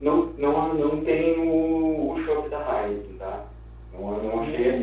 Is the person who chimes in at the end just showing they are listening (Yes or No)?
Yes